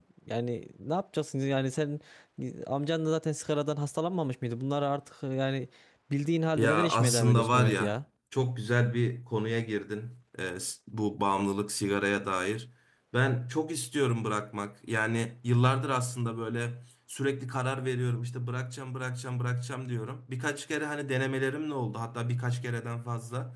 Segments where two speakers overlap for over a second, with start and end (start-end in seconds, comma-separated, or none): 6.6-7.9